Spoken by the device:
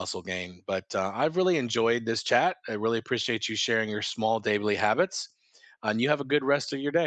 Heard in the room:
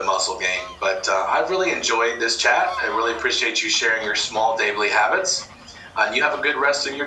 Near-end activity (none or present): none